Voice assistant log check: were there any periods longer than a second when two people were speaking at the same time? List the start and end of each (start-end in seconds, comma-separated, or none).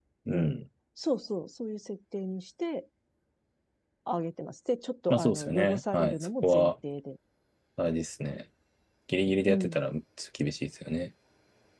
5.1-6.7